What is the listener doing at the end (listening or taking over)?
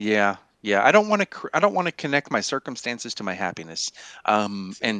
listening